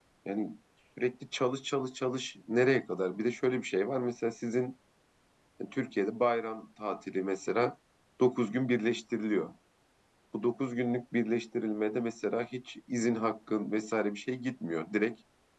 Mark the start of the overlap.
none

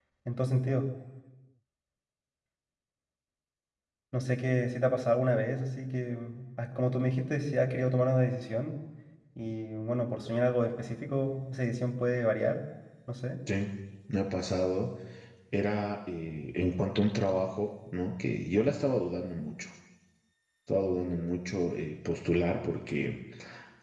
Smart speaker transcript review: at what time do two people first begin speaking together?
none

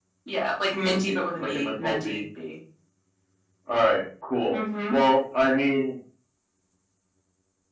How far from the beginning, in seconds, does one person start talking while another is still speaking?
0.8 s

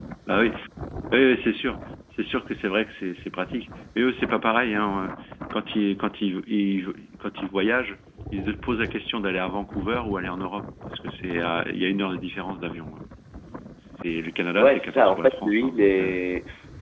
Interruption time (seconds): 14.6 s

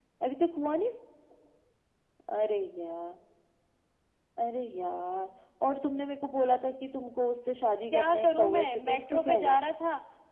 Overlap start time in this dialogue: 7.9 s

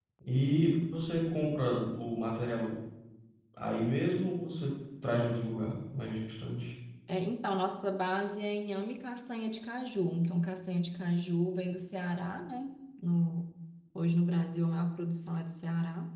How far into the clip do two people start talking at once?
none

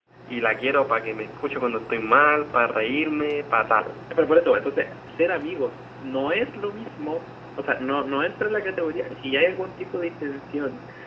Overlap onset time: none

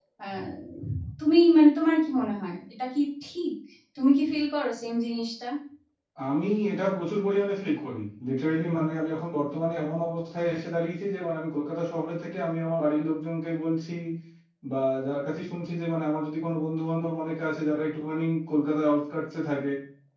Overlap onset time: none

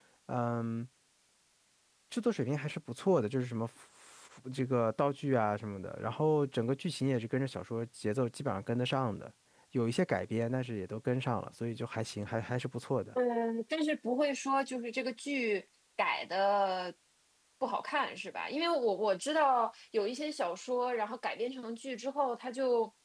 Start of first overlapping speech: none

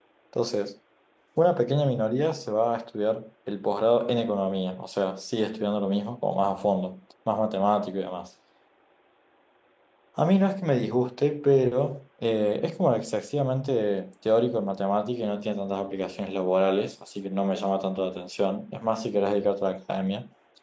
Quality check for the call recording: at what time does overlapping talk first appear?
none

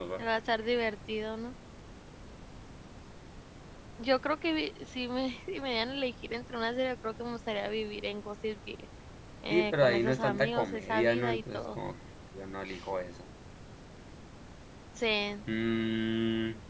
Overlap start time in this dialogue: 9.5 s

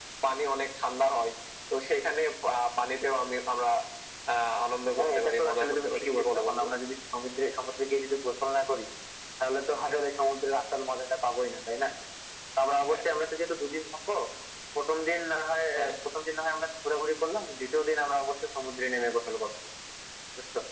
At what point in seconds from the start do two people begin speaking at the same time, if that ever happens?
4.9 s

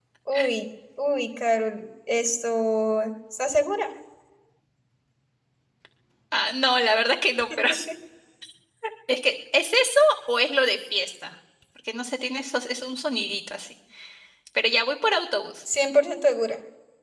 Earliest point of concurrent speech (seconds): none

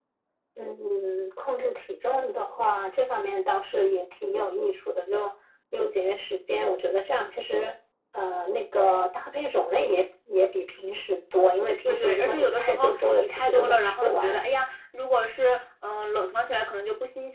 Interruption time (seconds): 11.8 s

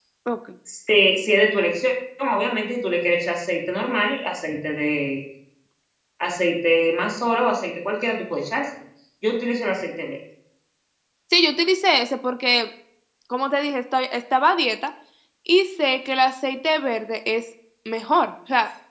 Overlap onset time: none

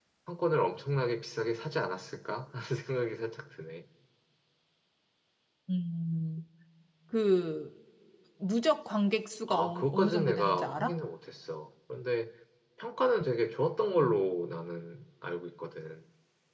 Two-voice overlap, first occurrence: 9.5 s

